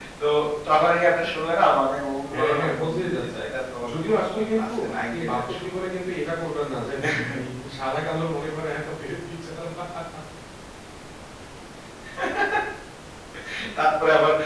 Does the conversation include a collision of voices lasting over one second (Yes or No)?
Yes